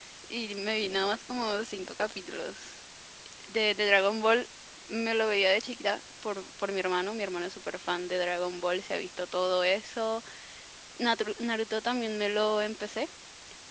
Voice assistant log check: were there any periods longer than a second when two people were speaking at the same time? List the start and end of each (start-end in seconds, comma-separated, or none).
none